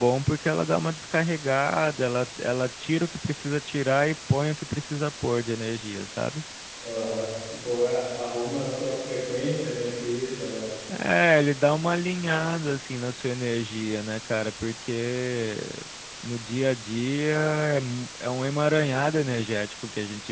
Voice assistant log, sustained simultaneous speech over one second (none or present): none